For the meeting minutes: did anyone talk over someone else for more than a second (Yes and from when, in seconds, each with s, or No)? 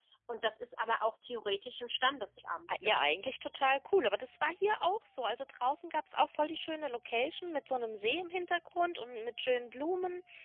No